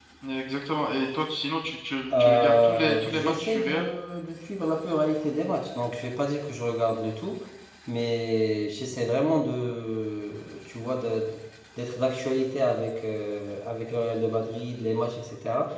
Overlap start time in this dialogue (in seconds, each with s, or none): 2.1 s